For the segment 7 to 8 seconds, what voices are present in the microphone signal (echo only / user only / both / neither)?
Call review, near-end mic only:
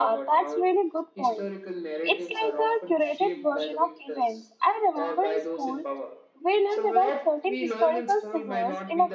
both